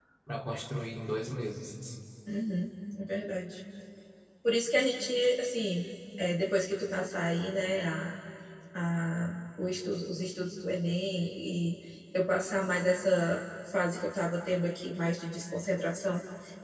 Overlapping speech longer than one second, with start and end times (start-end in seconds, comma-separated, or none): none